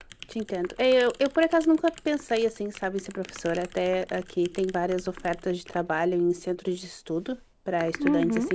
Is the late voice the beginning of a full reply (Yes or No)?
No